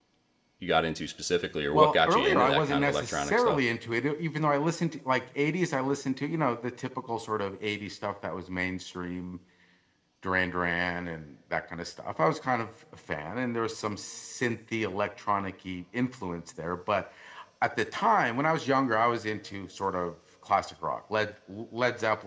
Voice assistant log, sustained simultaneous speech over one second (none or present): present